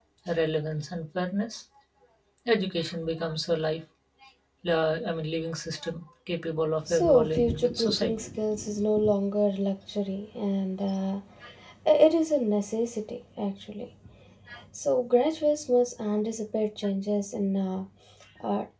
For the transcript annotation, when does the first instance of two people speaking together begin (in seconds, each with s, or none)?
6.9 s